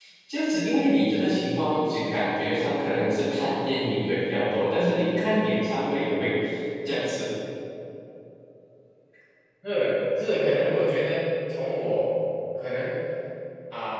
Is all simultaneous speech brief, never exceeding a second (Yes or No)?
Yes